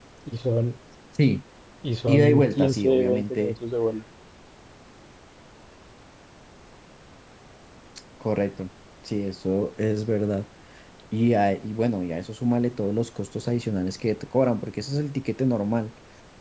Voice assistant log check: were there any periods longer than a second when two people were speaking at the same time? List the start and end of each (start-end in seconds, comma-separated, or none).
2.1-3.5